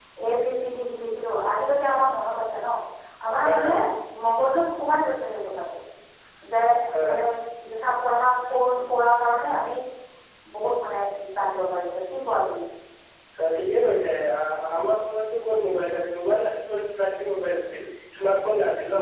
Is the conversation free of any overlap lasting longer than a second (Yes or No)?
Yes